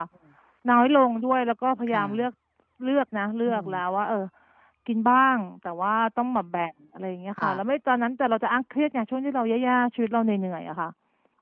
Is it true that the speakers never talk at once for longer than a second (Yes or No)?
Yes